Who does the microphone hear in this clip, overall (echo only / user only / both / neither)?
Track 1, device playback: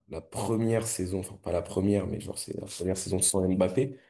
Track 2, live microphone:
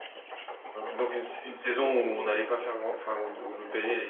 user only